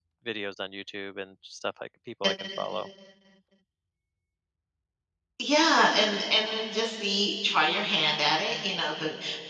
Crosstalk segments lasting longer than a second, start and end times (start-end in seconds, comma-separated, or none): none